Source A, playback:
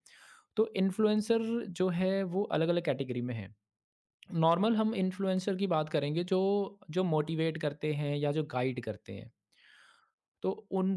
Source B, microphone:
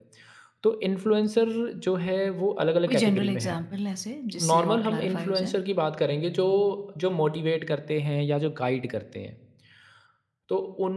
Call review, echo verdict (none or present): present